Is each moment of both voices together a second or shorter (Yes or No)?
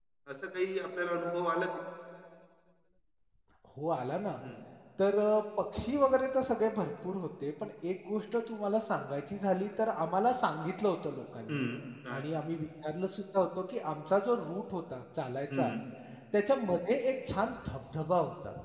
Yes